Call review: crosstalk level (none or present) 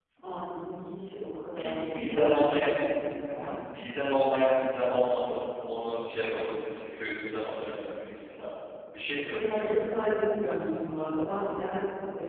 present